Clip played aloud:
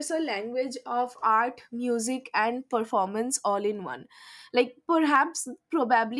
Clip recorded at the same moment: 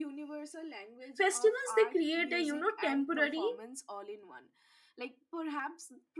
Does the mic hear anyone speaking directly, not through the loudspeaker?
Yes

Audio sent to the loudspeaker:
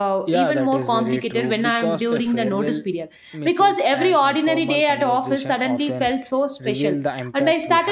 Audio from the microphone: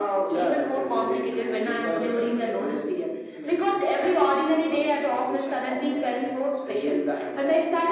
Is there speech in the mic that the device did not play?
No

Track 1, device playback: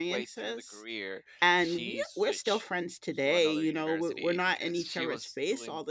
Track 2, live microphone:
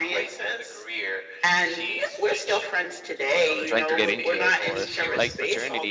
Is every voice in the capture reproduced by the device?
No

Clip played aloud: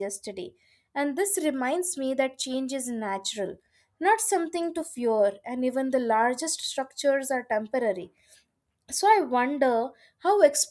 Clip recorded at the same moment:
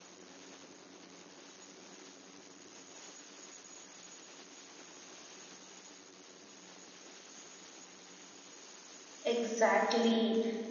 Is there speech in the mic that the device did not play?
Yes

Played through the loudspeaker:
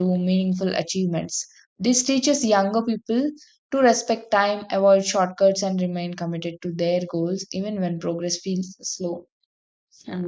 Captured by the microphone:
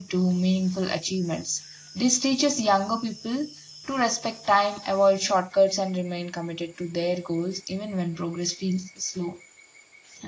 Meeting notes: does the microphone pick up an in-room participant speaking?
No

